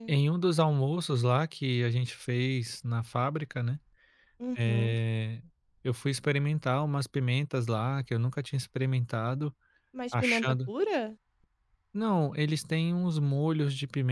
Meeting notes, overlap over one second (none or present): none